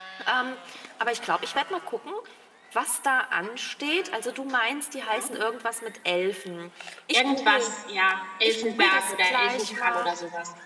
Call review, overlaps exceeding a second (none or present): present